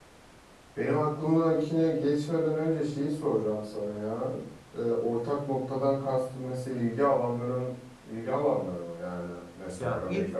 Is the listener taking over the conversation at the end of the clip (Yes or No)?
Yes